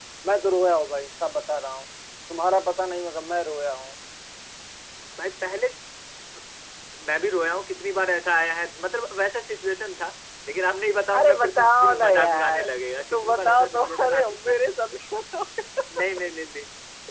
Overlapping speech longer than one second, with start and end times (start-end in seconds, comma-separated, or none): 11.1-12.6, 13.1-14.6